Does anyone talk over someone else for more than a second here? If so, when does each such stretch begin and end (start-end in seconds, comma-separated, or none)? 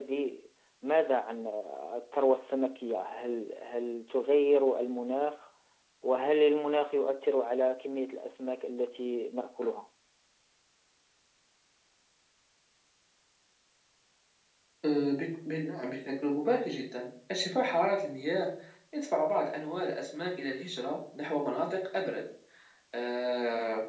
none